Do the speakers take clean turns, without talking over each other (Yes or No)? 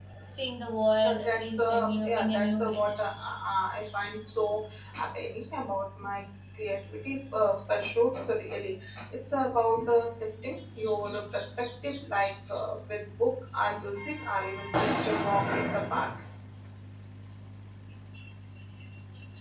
No